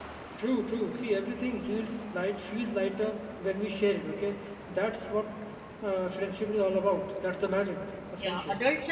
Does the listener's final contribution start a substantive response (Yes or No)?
Yes